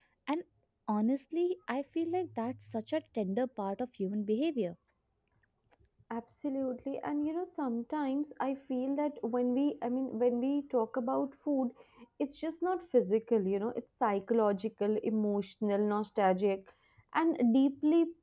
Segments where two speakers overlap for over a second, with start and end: none

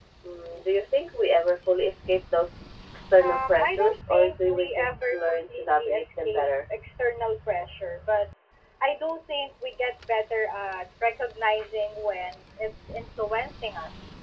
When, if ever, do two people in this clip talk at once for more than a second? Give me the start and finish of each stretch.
3.2-6.5

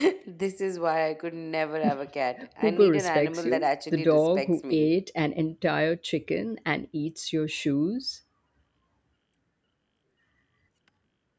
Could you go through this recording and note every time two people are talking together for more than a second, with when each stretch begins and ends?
2.6-4.9

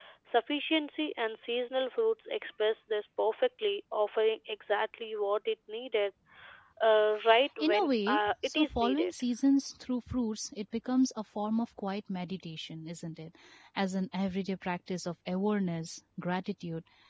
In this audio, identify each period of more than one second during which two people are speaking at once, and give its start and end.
7.6-9.1

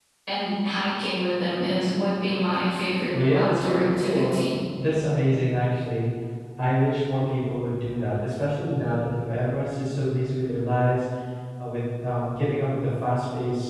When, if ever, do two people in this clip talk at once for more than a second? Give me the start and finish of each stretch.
3.1-4.5

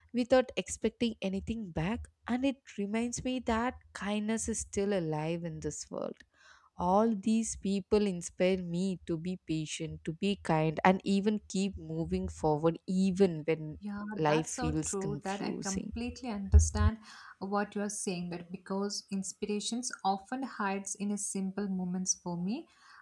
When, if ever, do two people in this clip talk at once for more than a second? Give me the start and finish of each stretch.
14.2-15.8

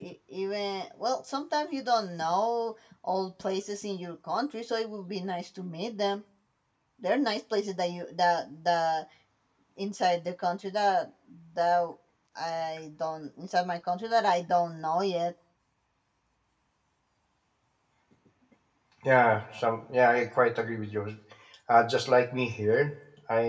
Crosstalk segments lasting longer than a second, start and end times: none

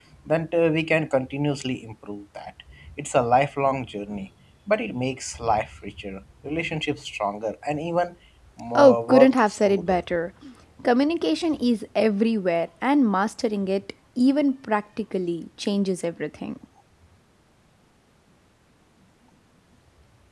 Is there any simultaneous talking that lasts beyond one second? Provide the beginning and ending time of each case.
8.8-10.0

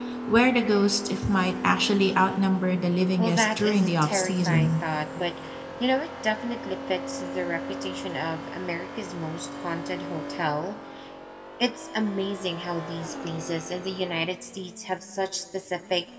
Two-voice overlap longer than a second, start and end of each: 3.2-4.7

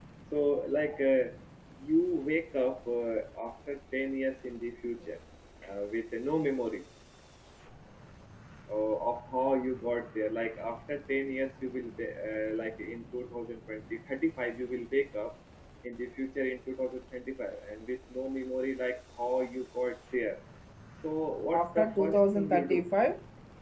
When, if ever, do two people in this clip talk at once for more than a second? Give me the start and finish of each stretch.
21.5-22.8

